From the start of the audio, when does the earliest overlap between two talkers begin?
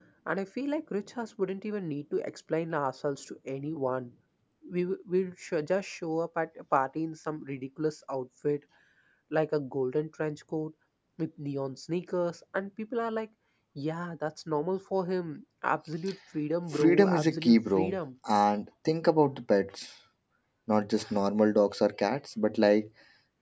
16.7 s

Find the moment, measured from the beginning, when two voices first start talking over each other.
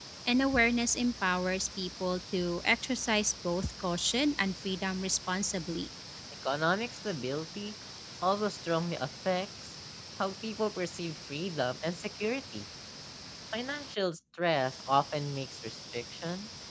none

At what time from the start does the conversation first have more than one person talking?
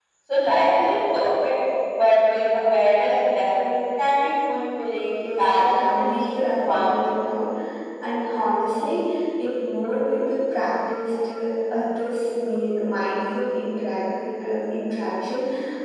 5.2 s

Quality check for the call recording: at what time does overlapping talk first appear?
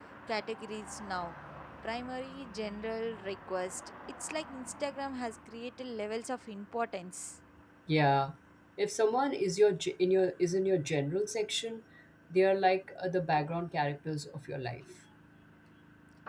none

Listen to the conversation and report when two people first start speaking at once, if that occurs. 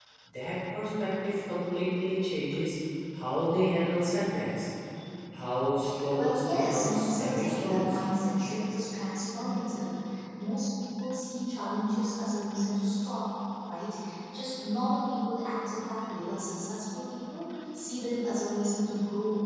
6.2 s

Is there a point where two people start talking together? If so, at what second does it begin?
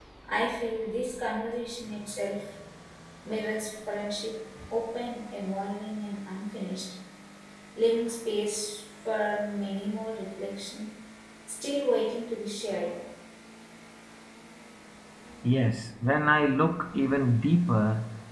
none

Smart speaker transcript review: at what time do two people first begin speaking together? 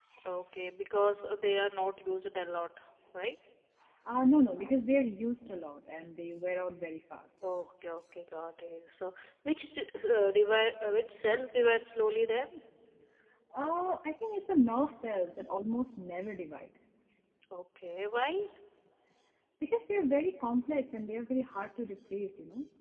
none

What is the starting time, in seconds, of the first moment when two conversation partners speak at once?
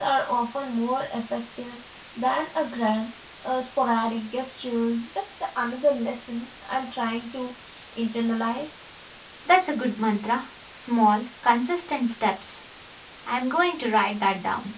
none

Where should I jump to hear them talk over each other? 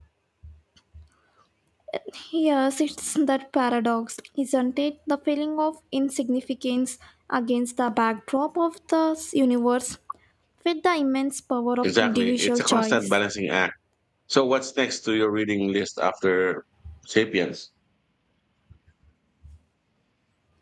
11.8 s

